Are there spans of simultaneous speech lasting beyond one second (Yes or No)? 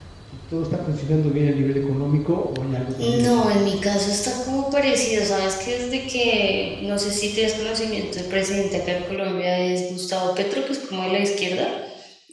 No